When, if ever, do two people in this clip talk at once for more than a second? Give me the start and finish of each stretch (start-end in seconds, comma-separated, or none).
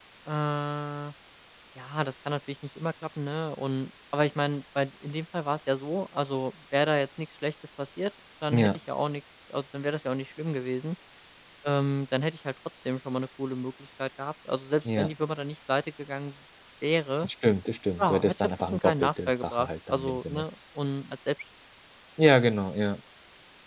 18.0-20.4